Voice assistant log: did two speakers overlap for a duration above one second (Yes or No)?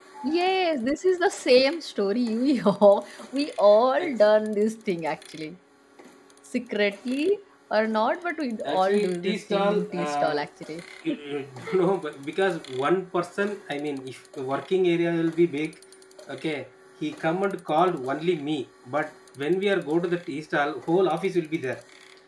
Yes